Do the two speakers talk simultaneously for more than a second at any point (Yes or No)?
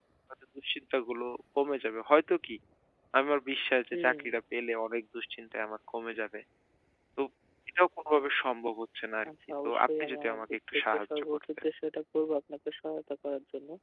Yes